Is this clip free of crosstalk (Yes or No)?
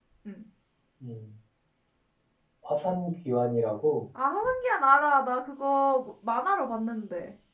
Yes